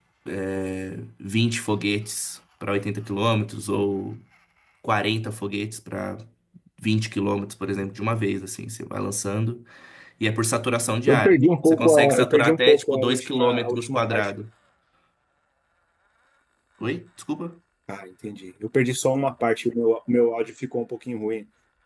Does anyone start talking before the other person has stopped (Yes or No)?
Yes